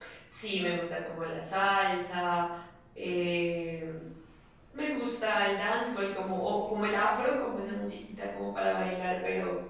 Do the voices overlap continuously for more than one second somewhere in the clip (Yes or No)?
No